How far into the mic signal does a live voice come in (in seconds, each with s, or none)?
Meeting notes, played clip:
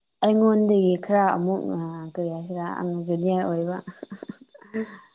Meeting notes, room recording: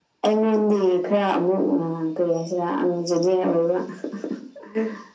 none